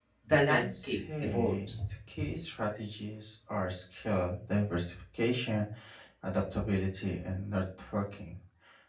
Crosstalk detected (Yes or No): Yes